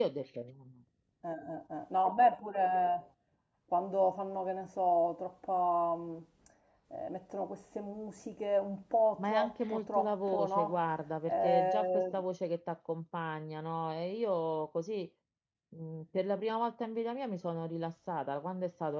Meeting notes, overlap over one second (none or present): present